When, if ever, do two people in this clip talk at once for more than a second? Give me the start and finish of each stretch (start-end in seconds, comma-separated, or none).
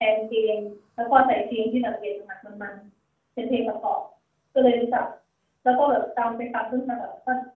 none